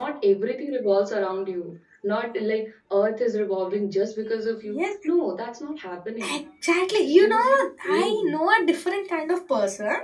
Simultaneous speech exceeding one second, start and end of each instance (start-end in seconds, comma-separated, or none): 7.0-8.3